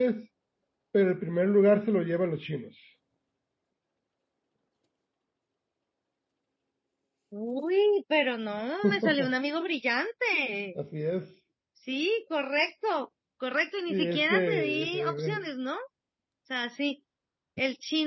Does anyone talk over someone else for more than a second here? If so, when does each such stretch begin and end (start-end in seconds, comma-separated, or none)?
13.9-15.4